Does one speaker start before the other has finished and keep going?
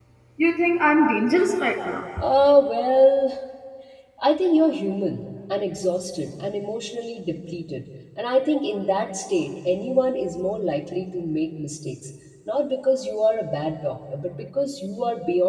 No

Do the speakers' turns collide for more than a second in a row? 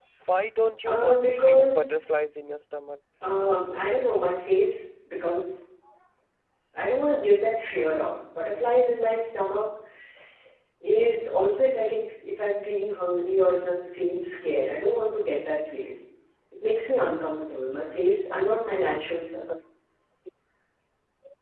Yes, from 0.9 s

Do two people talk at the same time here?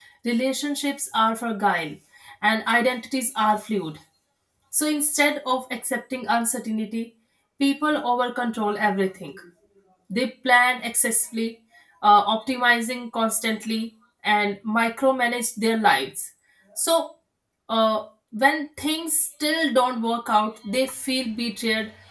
No

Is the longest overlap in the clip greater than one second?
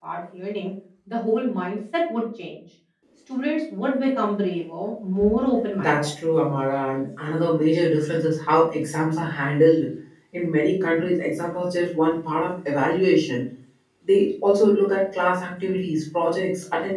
No

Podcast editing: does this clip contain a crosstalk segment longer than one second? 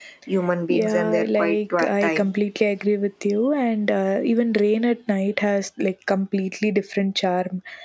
Yes, from 0.7 s

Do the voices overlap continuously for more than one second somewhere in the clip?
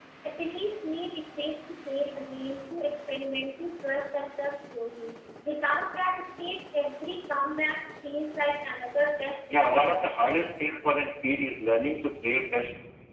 Yes, from 9.5 s

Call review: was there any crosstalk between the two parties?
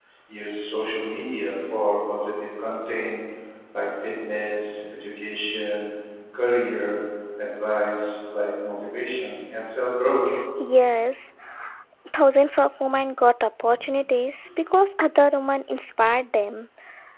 No

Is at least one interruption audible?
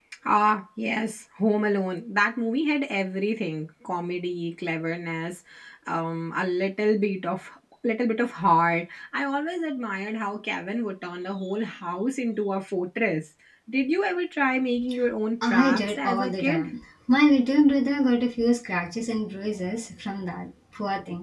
Yes, from 15.4 s

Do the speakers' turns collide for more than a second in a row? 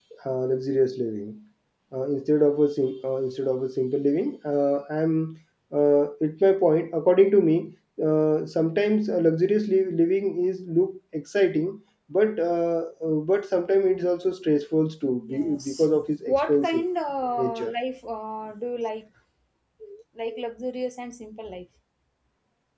Yes, from 15.3 s

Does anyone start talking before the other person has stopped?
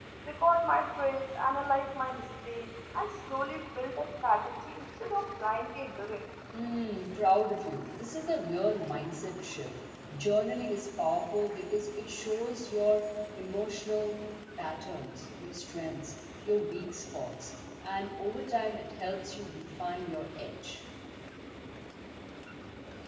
No

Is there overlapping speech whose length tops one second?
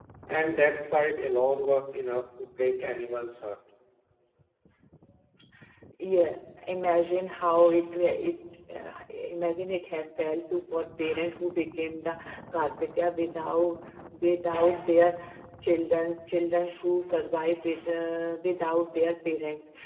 No

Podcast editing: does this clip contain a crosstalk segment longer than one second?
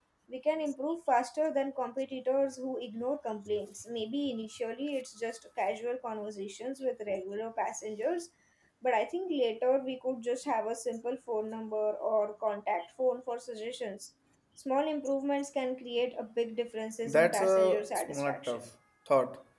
Yes, from 17.0 s

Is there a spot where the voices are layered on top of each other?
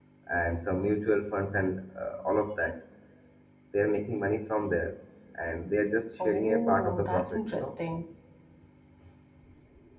Yes, from 6.2 s

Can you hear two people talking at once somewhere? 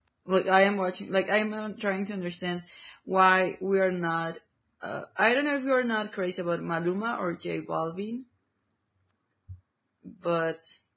No

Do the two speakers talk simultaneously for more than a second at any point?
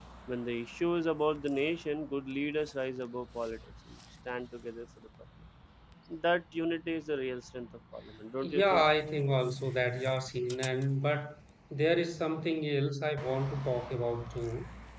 No

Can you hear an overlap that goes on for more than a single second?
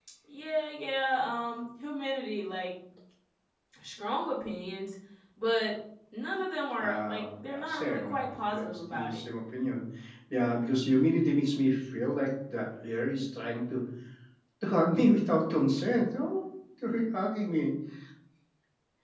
Yes, from 6.8 s

